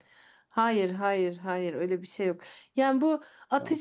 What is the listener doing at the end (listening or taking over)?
listening